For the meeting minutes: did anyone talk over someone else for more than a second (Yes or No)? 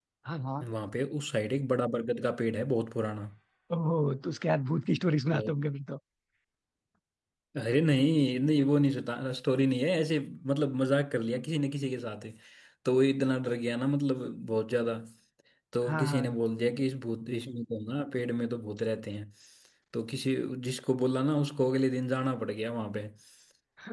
No